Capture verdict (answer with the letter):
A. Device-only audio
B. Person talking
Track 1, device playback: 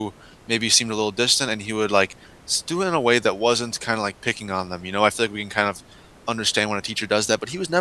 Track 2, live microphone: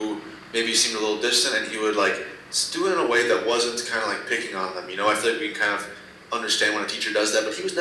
A